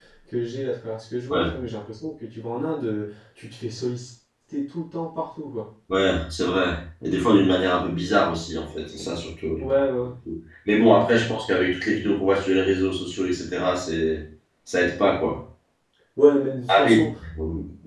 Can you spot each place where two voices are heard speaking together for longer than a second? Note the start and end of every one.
none

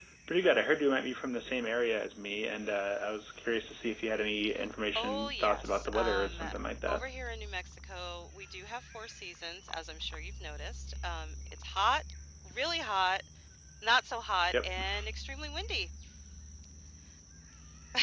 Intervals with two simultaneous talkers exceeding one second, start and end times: 5.0-6.4

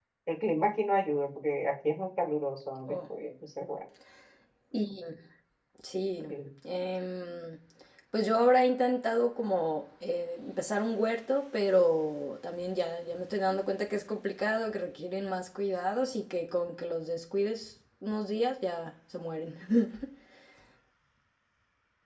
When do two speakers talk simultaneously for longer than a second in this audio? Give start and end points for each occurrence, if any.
none

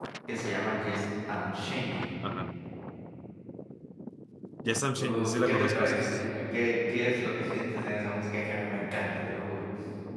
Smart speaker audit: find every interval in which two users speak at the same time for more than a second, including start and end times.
4.8-6.3

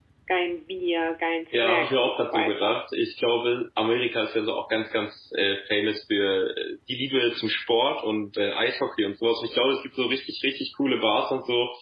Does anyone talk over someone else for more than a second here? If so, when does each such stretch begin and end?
1.5-2.8

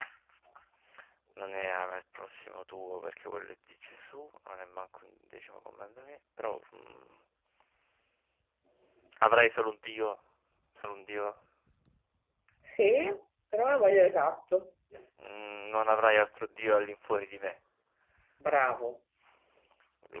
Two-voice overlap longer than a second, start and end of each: none

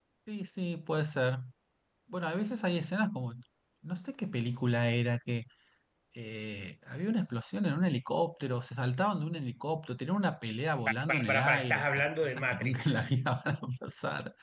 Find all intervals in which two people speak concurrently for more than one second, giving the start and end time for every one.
11.1-13.0

